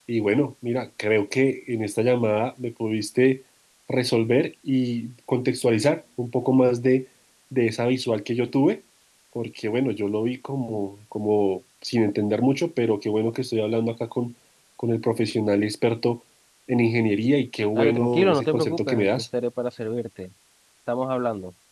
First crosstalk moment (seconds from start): 18 s

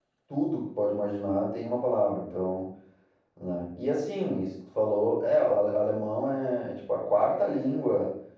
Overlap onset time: none

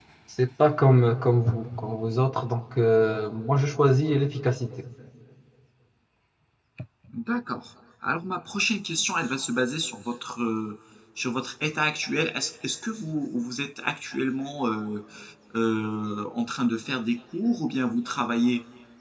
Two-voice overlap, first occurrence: none

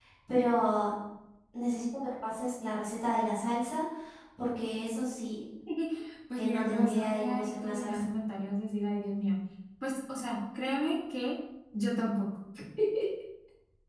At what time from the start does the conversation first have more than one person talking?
6 s

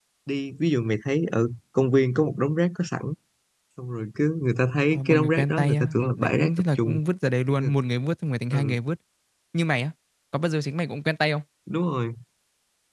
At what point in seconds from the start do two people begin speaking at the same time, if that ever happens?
5 s

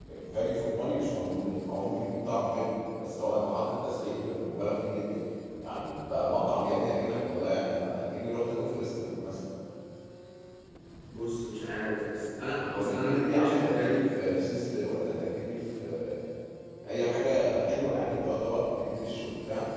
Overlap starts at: 13 s

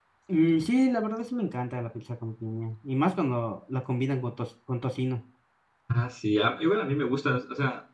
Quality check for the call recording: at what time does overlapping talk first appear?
none

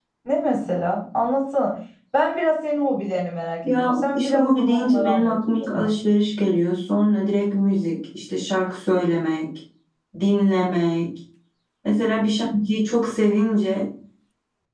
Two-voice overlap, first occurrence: 4 s

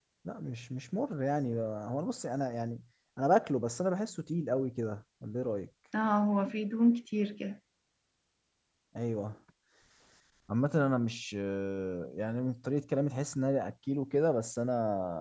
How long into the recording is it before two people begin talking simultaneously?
none

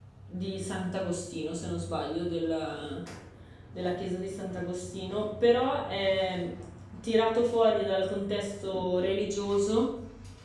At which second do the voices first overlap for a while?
none

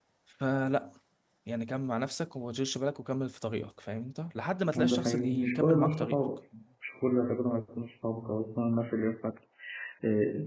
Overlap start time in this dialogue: 5 s

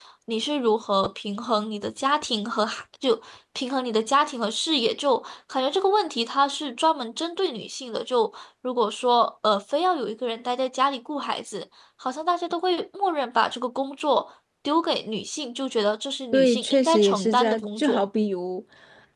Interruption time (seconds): 16 s

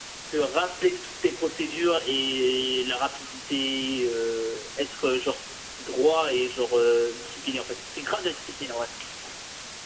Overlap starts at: none

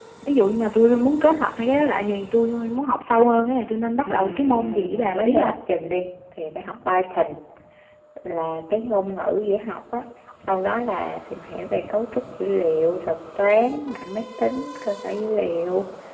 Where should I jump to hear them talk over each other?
4 s

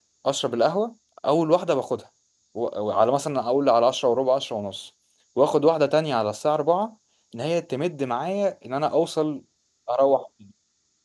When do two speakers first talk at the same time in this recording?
none

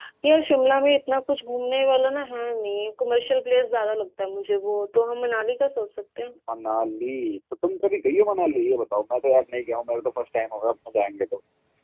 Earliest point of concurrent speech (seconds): none

